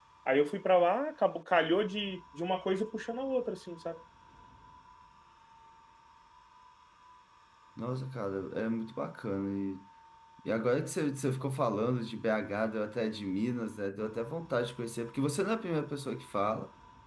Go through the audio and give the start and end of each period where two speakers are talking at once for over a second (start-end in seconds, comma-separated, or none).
none